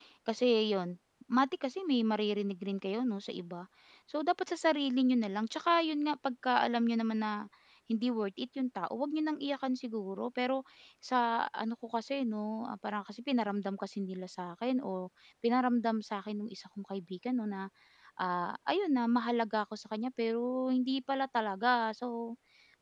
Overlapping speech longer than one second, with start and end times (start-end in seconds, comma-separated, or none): none